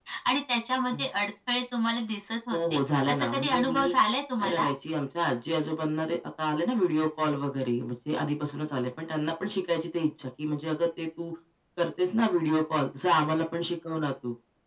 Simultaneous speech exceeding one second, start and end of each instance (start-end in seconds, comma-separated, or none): 2.5-4.0